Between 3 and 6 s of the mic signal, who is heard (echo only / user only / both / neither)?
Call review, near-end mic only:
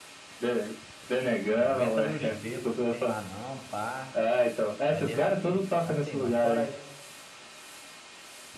both